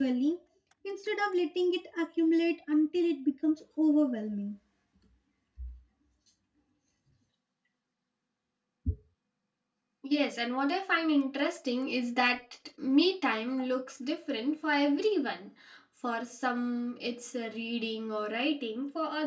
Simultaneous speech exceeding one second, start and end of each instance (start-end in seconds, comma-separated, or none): none